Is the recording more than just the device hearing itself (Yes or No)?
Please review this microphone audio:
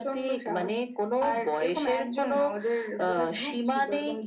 No